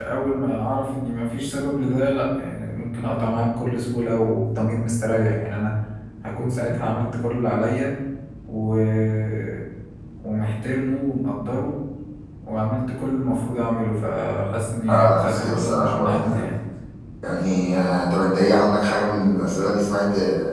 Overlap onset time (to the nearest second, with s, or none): 15 s